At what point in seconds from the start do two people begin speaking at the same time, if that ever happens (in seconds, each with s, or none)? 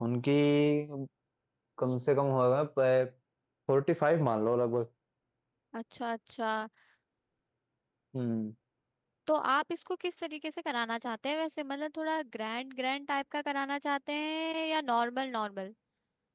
none